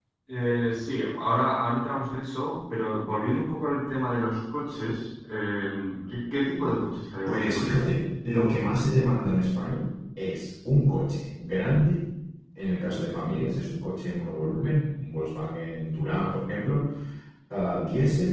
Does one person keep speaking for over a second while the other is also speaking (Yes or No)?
No